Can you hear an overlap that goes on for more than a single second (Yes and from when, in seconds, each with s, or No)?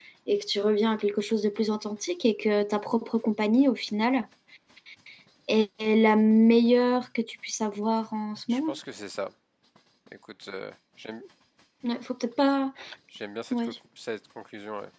No